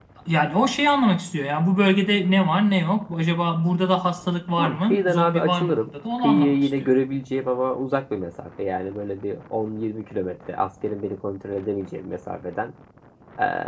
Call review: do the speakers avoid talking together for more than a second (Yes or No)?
No